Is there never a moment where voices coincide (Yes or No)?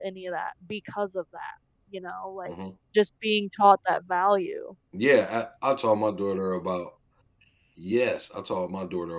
Yes